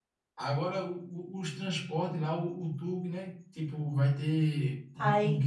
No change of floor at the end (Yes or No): No